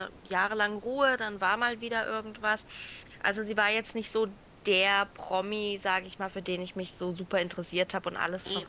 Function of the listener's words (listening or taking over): listening